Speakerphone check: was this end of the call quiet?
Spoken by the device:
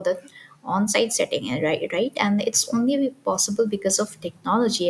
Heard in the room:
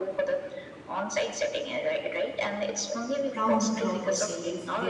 No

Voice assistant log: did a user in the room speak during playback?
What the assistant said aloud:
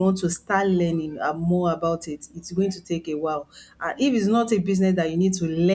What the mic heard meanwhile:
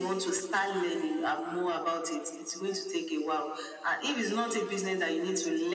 No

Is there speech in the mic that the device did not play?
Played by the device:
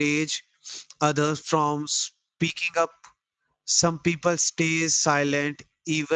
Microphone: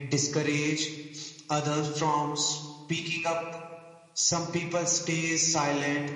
No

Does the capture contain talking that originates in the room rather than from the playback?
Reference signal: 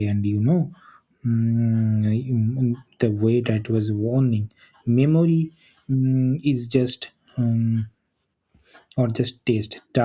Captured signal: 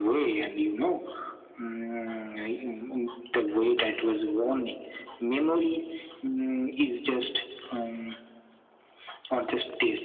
No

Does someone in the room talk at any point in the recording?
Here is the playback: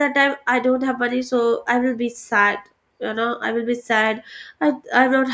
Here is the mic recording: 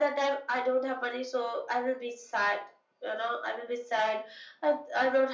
No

